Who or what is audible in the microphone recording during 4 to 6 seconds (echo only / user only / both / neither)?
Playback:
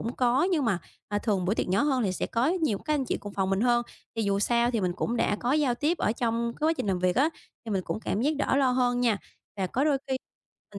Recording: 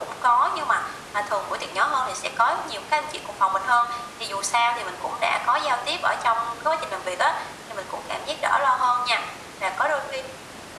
echo only